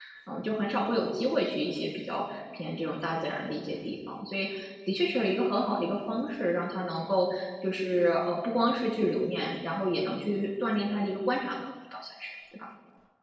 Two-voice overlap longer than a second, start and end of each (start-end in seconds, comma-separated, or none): none